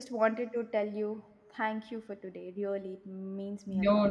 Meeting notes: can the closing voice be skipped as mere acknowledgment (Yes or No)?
No